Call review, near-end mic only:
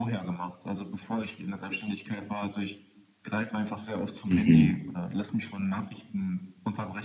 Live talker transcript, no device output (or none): Mhm.